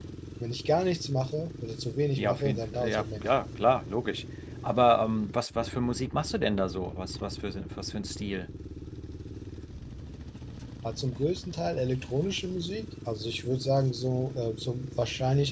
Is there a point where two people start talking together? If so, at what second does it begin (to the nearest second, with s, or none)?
2 s